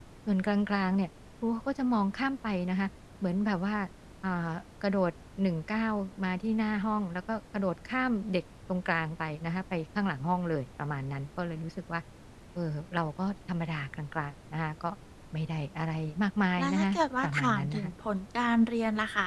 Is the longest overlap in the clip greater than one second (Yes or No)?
Yes